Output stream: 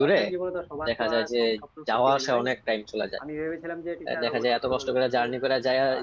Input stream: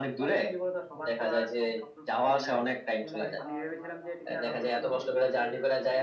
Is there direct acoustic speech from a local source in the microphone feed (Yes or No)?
Yes